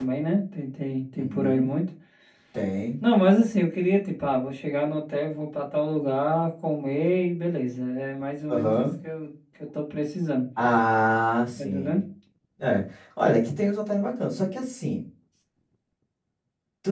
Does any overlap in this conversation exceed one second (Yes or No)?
No